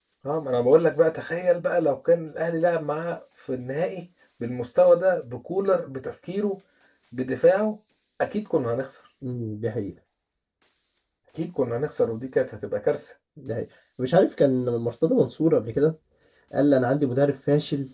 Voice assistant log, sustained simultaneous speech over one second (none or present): none